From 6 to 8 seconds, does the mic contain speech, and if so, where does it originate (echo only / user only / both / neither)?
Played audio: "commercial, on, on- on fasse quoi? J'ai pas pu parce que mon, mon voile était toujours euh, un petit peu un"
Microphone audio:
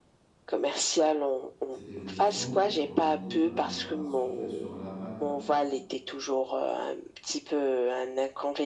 echo only